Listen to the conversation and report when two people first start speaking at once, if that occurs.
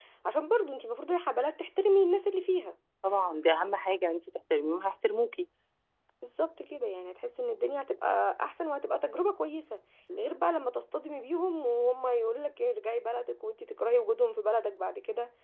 none

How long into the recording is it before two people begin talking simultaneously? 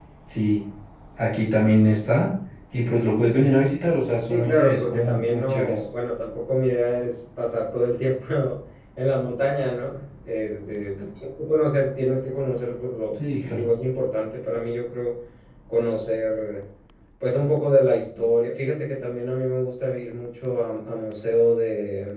4.2 s

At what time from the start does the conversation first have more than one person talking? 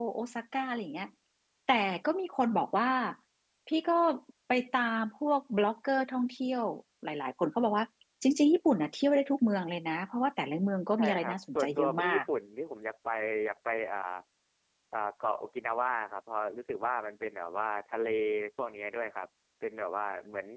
11.0 s

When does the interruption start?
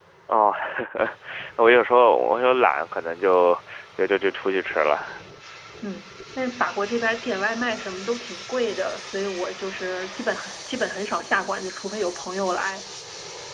none

